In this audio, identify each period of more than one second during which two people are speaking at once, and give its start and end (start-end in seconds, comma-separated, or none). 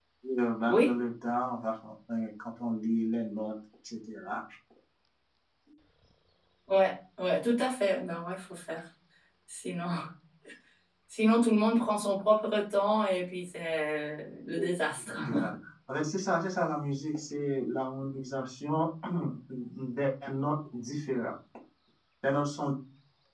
none